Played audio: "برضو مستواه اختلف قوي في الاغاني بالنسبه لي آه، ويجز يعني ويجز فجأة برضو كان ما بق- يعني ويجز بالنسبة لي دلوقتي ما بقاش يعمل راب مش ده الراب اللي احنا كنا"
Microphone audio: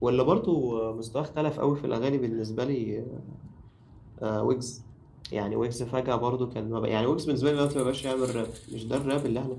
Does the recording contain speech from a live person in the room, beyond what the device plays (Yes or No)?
No